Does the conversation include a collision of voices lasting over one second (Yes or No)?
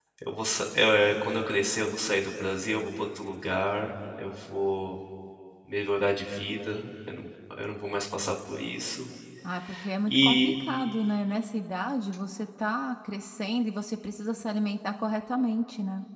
No